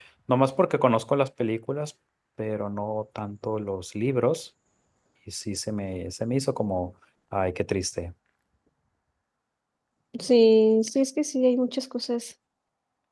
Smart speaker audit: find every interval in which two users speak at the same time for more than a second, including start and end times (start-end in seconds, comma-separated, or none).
none